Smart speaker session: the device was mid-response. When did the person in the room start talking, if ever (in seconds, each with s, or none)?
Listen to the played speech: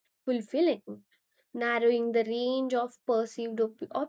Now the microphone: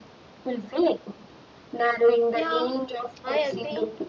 2.3 s